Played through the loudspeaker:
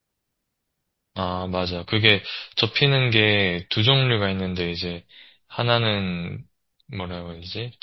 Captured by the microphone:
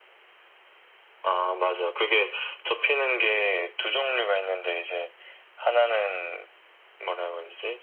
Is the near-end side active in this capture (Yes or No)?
No